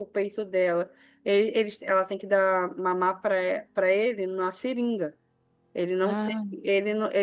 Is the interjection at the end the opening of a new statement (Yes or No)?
No